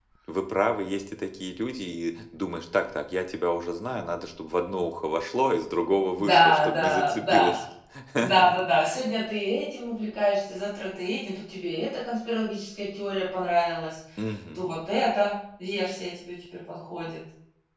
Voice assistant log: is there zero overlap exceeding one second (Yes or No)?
No